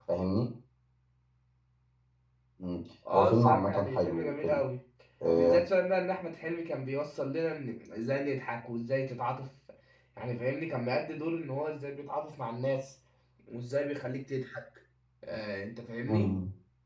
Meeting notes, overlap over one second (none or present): present